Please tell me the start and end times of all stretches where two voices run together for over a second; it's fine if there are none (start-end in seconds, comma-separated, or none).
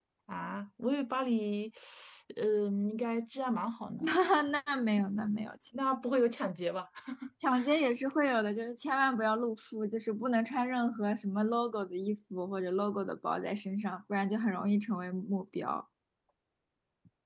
none